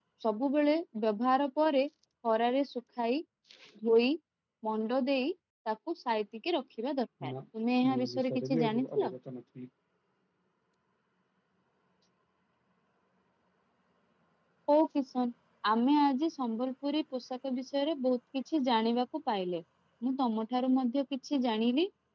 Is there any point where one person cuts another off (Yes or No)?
Yes